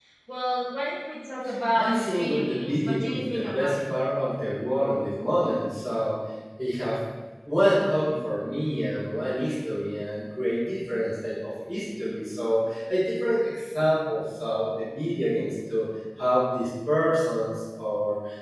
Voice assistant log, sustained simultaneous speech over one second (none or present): present